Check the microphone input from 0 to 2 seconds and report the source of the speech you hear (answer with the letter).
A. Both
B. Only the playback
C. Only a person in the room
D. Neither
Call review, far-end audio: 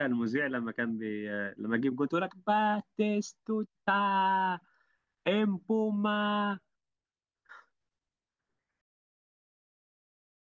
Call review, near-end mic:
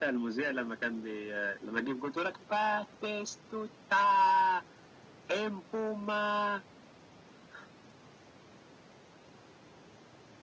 B